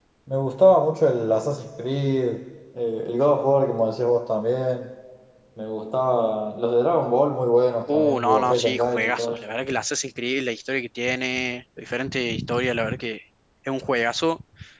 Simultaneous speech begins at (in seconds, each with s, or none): 7.9 s